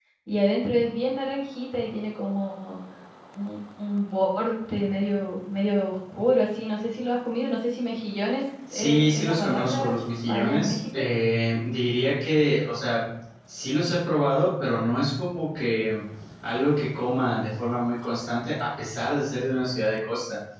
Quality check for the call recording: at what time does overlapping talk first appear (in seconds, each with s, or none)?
8.7 s